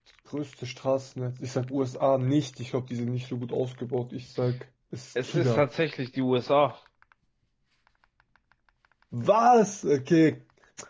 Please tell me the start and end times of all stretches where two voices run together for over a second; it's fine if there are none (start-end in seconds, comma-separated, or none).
none